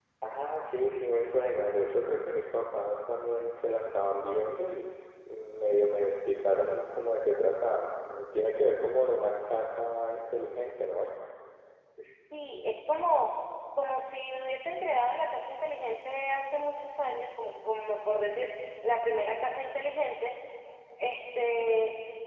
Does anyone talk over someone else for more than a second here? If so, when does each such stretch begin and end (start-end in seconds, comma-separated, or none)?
none